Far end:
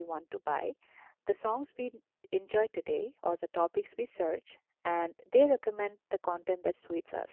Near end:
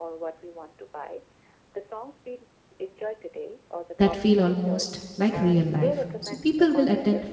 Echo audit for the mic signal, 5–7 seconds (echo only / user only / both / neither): both